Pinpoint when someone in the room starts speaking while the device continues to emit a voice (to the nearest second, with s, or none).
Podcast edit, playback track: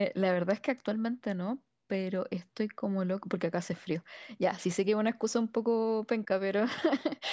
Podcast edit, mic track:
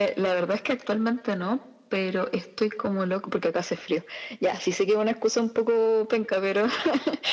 none